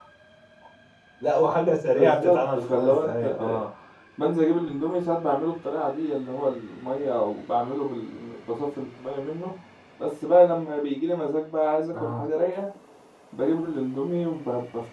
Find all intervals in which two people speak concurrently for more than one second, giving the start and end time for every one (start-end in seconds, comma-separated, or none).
2.0-3.6